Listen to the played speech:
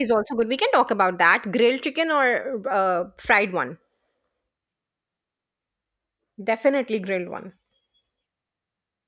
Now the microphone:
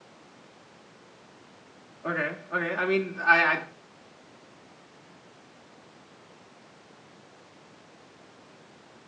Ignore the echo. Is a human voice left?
Yes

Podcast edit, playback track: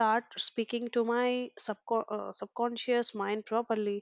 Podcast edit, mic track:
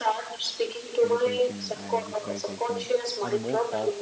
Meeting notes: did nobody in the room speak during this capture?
No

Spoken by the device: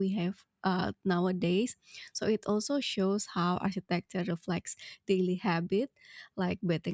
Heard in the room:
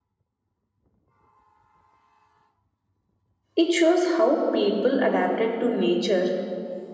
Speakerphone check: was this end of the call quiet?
No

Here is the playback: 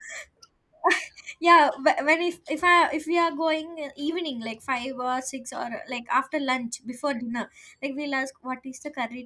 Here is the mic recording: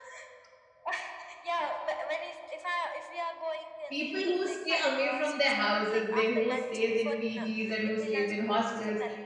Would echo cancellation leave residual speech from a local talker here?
Yes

